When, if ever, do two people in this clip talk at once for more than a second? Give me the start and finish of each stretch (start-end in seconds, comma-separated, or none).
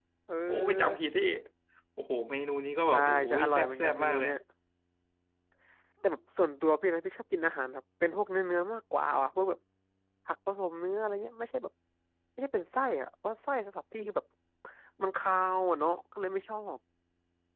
2.9-4.3